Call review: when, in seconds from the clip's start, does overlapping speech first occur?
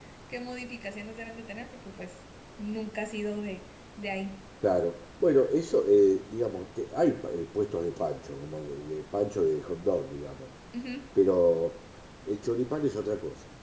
none

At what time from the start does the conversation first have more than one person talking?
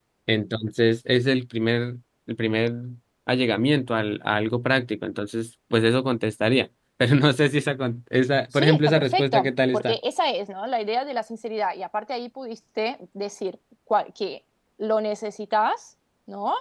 8.5 s

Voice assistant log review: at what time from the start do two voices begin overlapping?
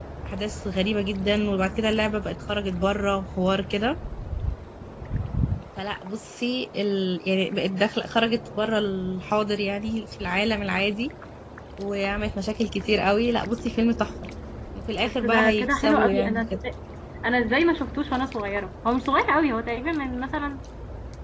15.0 s

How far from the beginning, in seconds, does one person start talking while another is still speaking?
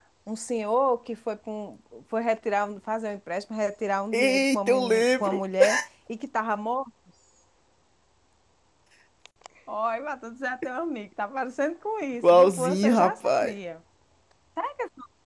4.1 s

